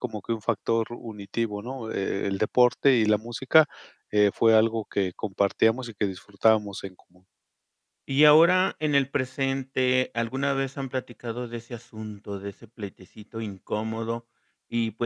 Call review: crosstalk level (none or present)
none